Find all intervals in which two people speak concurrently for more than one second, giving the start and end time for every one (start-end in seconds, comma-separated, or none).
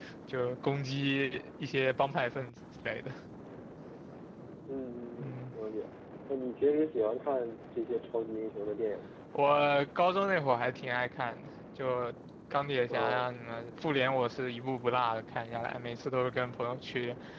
none